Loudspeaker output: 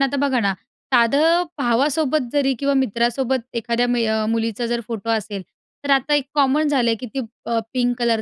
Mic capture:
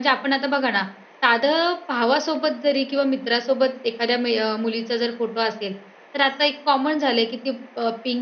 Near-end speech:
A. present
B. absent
B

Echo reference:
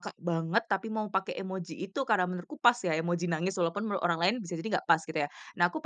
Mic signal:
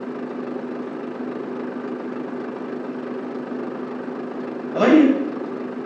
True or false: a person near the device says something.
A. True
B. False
A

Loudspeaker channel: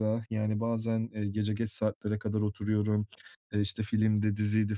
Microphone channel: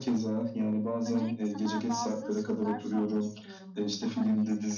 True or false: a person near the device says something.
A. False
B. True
B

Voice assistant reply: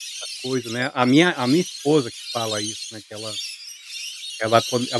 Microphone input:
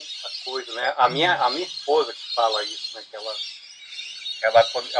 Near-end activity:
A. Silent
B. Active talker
B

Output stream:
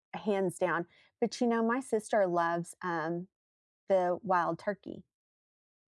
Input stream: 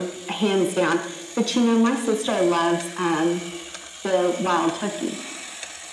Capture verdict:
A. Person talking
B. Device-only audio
B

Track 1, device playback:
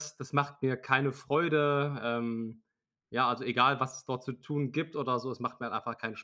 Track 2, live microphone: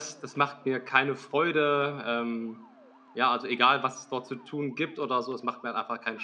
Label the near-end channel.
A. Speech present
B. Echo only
B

